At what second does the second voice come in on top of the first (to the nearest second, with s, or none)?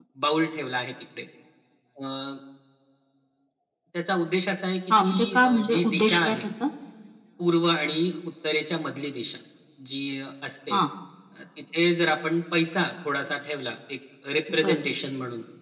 5 s